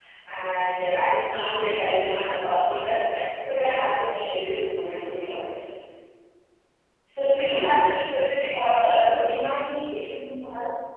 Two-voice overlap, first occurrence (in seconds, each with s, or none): none